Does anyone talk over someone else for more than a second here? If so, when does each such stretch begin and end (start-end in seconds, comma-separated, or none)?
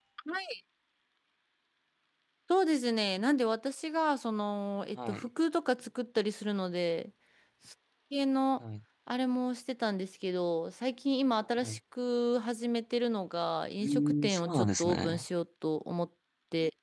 13.8-15.2